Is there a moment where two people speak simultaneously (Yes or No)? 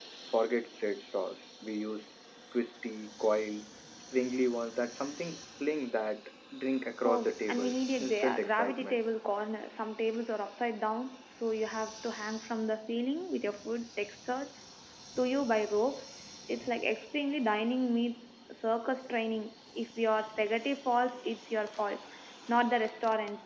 Yes